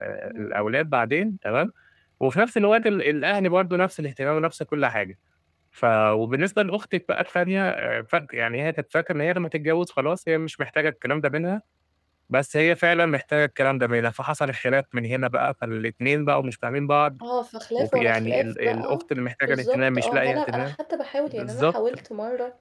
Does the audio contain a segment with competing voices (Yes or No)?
Yes